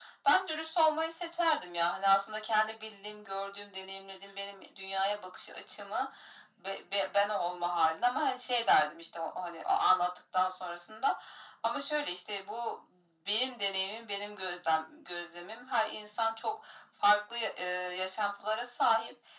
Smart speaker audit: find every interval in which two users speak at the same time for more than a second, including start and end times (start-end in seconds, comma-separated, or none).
none